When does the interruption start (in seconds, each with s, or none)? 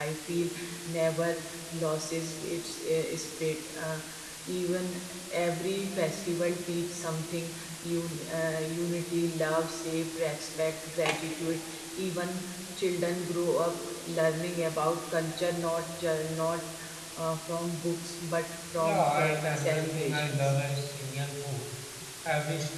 18.7 s